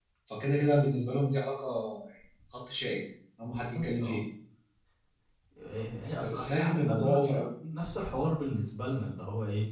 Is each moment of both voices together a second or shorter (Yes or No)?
No